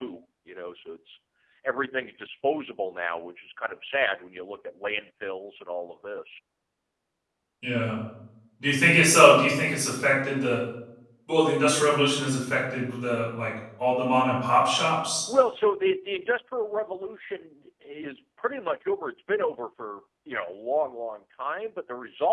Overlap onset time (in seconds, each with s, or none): none